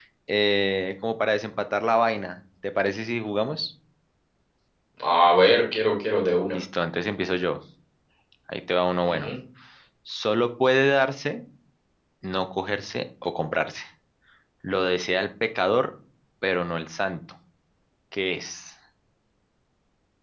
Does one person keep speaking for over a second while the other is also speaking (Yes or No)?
No